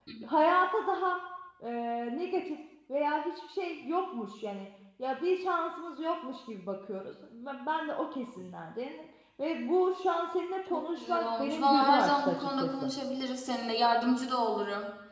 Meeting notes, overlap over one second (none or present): present